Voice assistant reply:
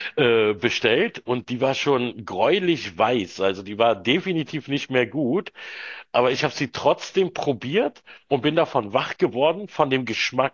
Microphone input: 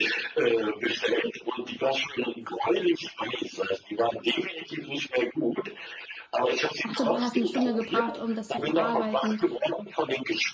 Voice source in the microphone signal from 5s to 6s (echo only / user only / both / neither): echo only